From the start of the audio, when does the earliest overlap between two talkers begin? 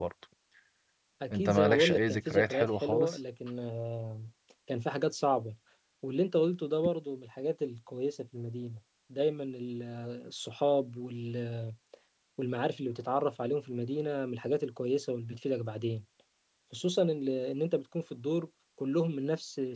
1.3 s

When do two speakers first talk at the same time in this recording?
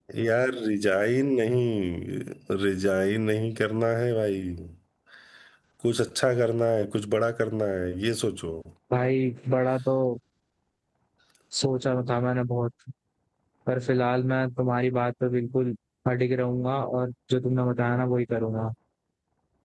none

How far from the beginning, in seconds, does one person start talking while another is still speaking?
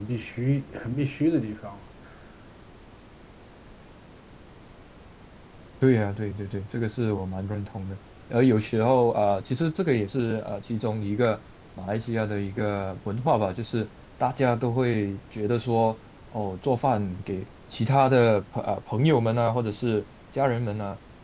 none

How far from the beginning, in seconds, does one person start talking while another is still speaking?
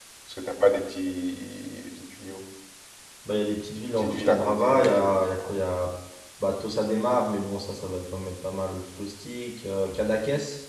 4.0 s

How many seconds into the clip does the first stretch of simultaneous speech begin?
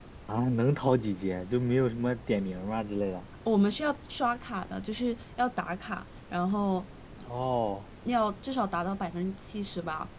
none

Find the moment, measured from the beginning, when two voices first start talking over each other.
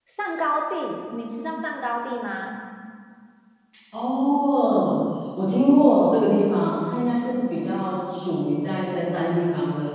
none

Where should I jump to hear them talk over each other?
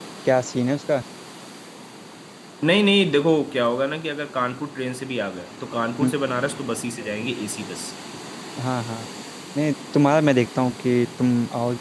none

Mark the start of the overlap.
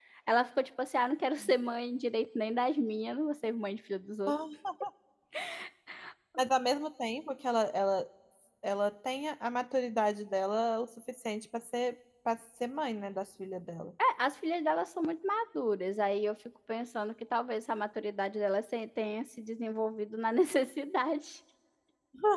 none

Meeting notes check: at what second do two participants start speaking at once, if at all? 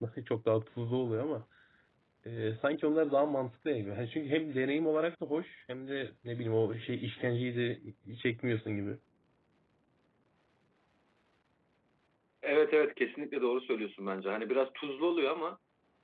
none

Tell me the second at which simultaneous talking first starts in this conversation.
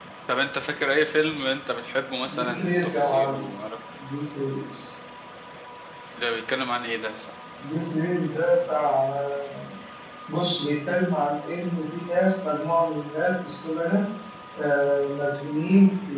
2.2 s

